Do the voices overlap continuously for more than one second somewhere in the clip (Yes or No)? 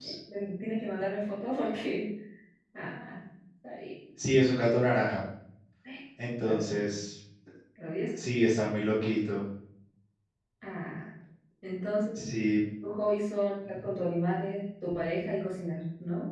No